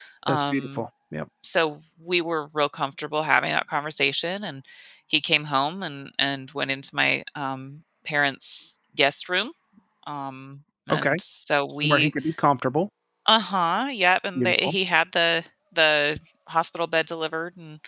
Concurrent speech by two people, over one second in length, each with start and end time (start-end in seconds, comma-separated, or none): none